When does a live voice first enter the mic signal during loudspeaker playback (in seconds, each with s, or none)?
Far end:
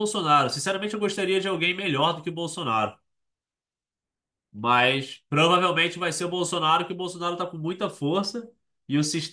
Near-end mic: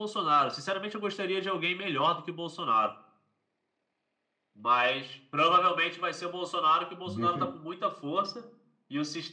7.0 s